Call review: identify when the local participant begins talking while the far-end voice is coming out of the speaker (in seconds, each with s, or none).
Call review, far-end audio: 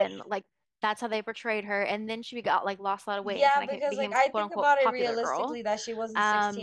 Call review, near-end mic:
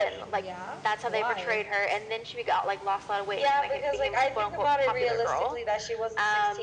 0.3 s